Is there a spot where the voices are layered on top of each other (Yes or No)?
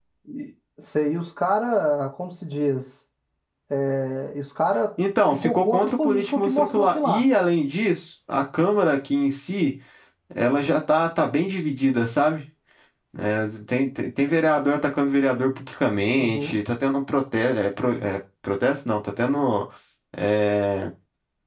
Yes